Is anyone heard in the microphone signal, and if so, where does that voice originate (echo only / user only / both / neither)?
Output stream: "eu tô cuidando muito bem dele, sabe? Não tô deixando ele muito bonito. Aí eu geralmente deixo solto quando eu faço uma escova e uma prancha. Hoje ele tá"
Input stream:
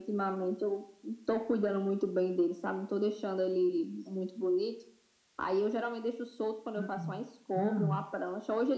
both